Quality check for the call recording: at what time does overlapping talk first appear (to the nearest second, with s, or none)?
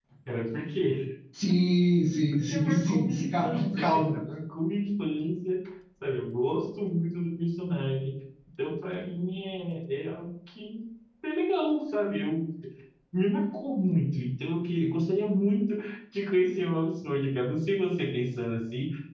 2 s